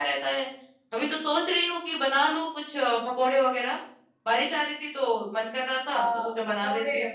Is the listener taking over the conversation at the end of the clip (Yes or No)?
Yes